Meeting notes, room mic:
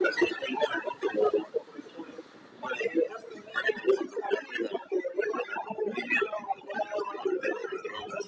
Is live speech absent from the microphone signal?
Yes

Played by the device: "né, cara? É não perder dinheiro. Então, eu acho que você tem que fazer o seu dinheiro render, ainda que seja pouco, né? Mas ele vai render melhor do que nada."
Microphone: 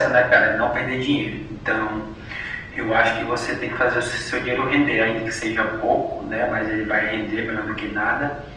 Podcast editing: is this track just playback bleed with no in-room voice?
Yes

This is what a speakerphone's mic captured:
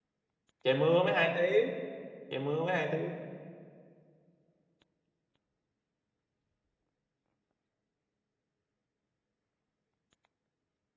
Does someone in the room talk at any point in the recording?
Yes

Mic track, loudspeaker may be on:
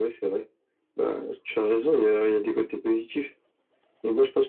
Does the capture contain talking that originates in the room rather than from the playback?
No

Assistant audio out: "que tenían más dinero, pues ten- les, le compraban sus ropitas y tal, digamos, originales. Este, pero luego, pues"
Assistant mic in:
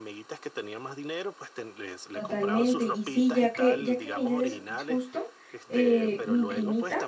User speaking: Yes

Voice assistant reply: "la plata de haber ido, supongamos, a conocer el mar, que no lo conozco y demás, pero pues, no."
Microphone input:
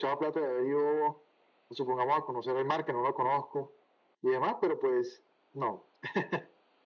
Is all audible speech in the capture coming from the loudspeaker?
Yes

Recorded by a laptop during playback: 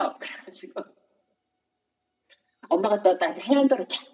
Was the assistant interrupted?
No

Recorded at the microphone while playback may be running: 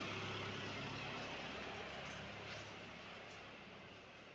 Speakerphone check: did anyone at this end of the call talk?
No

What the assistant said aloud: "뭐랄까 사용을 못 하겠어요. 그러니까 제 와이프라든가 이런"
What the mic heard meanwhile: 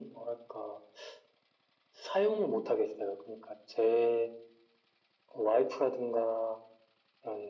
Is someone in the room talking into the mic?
No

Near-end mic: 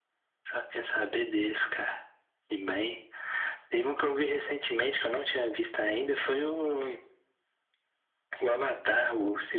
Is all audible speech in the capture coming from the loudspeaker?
Yes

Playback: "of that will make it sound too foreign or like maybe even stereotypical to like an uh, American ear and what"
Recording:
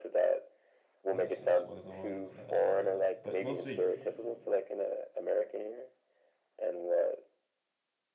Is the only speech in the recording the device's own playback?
No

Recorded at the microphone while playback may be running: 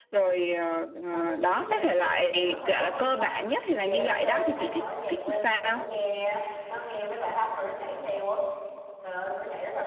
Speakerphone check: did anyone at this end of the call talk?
Yes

